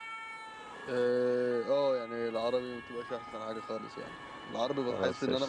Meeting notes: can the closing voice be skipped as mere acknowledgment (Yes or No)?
Yes